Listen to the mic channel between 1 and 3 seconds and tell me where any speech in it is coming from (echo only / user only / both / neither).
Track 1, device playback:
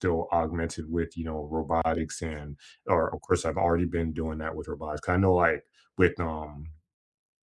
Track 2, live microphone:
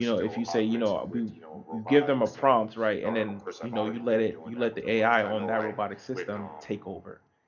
both